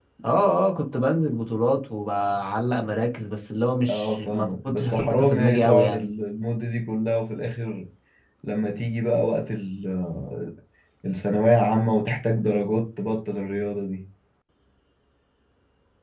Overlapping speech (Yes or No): Yes